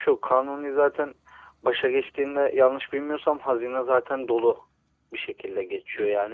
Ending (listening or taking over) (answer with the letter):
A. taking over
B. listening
B